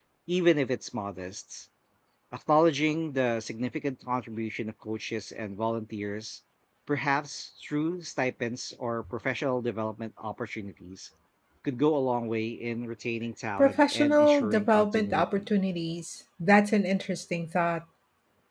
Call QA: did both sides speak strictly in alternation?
No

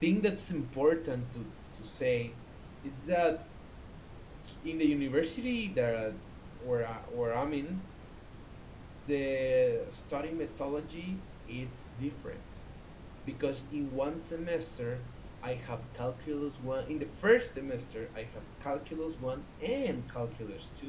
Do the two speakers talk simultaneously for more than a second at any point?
No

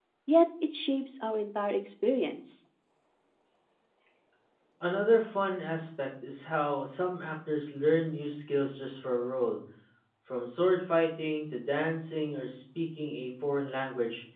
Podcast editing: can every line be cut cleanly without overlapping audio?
Yes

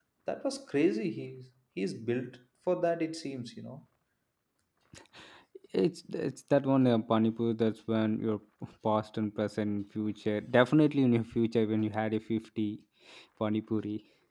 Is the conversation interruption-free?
Yes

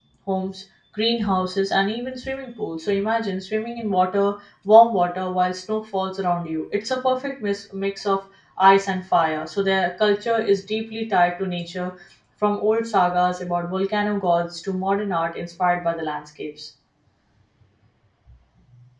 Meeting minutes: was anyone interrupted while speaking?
No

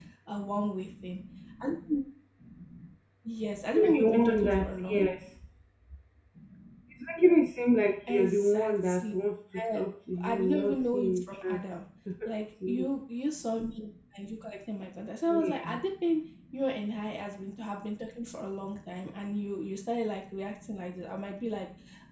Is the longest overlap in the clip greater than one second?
Yes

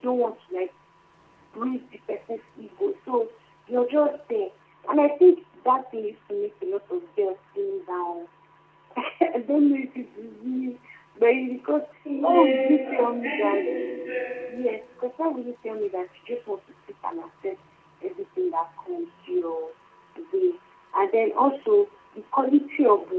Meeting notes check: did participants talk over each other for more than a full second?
Yes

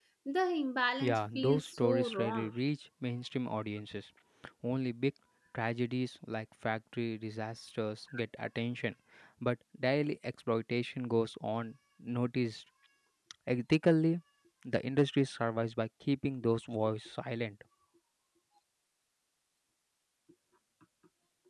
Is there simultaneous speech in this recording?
Yes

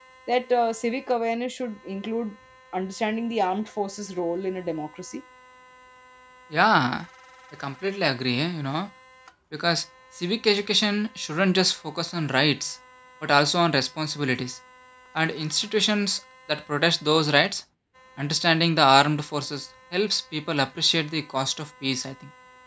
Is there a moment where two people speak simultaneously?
No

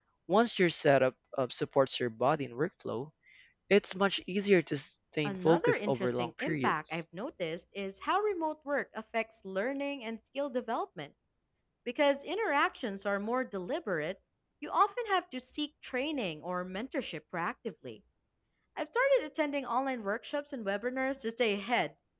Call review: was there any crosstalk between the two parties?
Yes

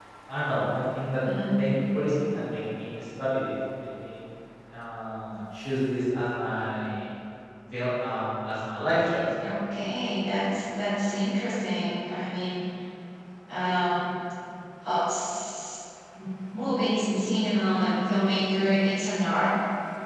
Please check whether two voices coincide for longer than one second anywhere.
No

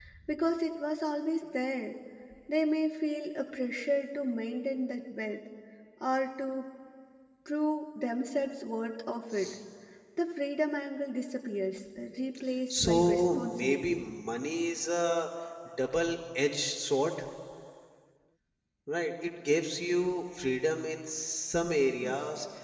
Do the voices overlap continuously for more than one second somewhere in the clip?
Yes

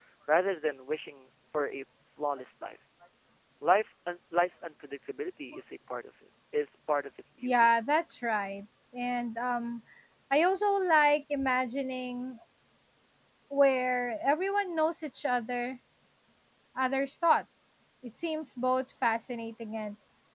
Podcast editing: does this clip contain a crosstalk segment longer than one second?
No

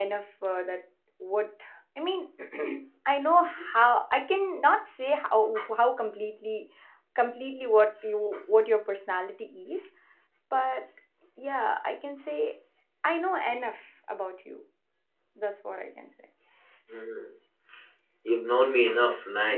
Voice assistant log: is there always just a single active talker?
Yes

